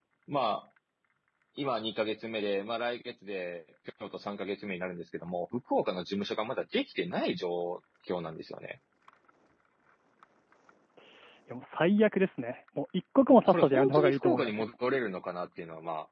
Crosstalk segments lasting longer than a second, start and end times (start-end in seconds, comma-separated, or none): 13.4-14.6